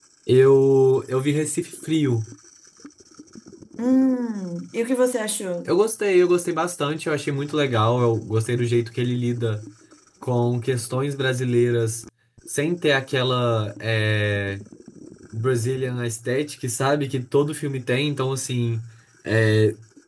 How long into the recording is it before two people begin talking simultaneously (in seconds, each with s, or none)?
none